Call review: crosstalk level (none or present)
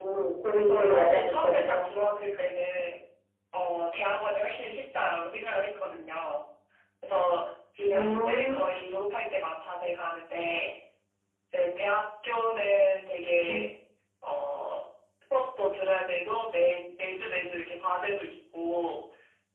present